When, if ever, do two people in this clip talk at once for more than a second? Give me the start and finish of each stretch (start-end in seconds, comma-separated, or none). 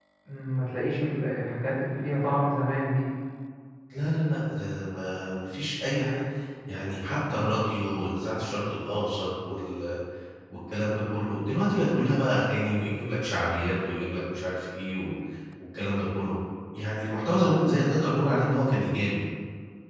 none